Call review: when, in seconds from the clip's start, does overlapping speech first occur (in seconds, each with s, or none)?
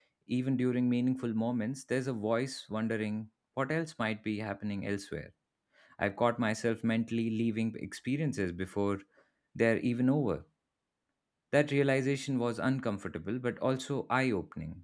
none